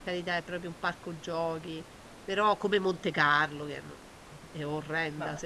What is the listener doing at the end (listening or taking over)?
listening